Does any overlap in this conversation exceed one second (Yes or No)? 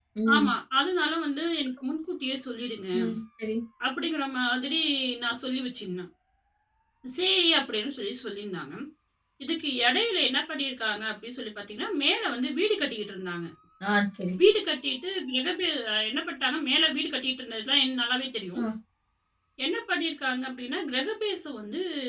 No